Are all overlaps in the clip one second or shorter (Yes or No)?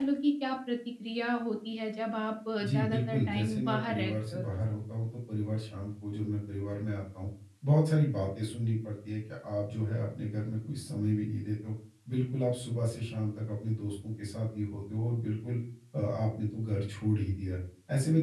No